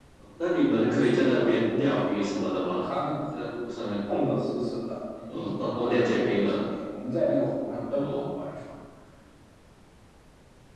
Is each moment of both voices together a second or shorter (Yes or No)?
No